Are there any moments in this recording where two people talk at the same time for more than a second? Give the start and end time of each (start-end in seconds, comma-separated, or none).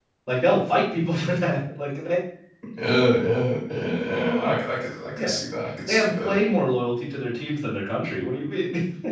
none